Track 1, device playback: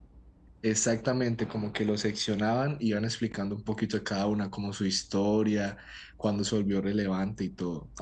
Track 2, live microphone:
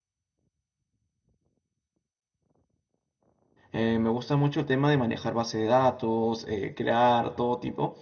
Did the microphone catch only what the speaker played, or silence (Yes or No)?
No